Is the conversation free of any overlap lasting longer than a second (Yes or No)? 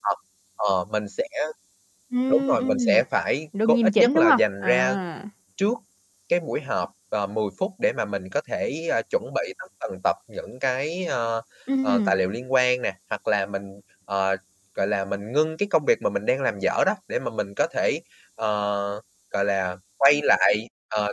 No